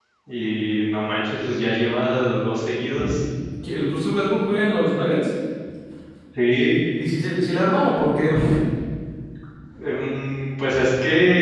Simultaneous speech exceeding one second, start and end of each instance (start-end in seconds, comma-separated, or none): none